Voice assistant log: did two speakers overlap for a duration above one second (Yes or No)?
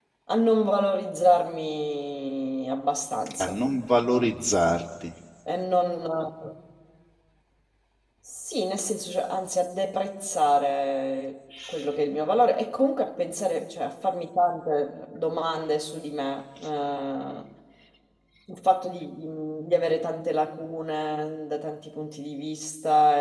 No